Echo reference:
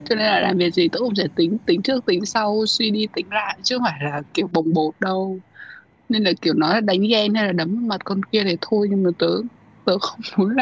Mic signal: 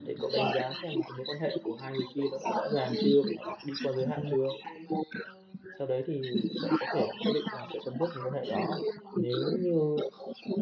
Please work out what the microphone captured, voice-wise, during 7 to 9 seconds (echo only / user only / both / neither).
both